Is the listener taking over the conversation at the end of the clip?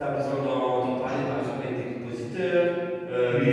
No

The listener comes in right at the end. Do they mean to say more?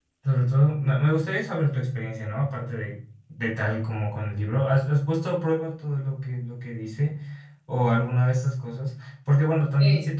No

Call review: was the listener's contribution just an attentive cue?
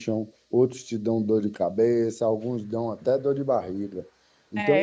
No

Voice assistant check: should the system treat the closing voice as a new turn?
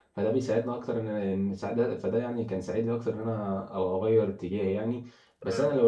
No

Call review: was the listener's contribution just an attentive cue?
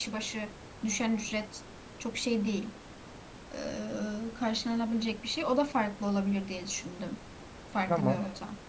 No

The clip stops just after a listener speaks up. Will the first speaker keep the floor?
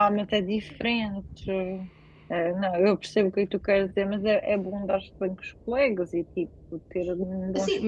No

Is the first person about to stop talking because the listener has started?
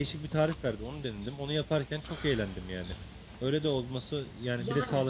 Yes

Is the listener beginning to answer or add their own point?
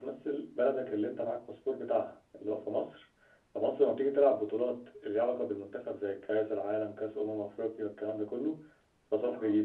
No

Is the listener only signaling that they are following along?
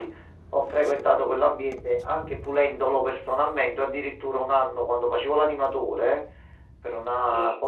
Yes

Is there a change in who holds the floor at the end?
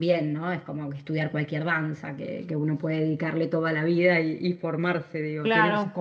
Yes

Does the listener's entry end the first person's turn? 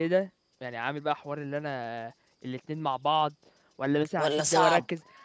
No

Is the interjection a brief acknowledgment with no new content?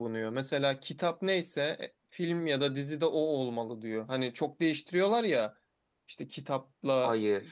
Yes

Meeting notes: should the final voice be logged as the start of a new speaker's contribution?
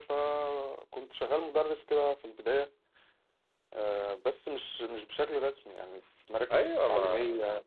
Yes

